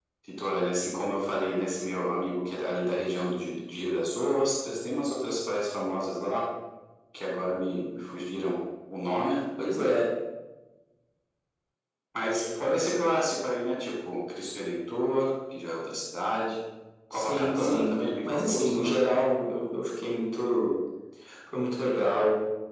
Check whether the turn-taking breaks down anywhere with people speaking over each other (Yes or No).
Yes